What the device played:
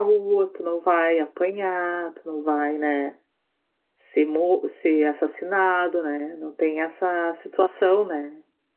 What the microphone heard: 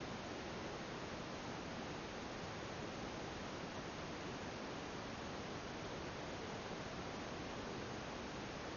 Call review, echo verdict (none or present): none